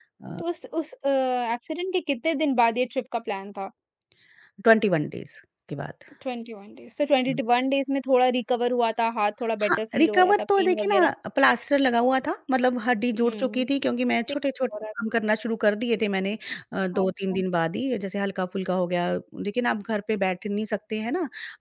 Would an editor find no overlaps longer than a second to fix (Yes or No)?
No